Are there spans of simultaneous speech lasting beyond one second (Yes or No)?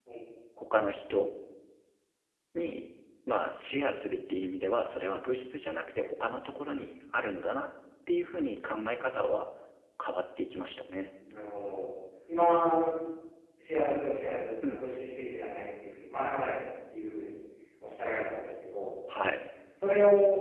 No